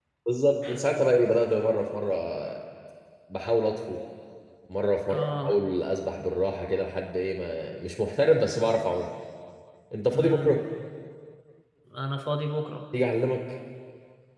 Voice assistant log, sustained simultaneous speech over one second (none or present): none